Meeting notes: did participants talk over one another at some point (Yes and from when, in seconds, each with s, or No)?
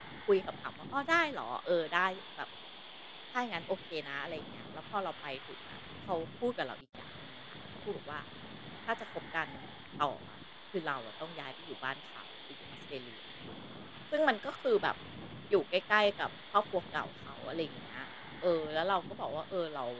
No